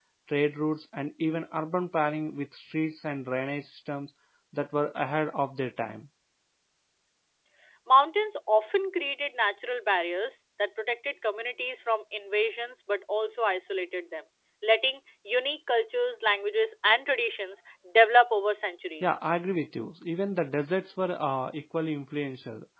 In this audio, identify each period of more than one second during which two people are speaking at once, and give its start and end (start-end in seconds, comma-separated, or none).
none